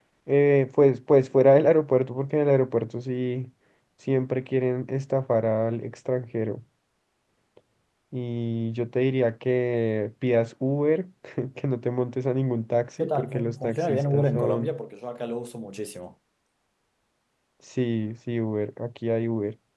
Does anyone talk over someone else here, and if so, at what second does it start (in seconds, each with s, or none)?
13.0 s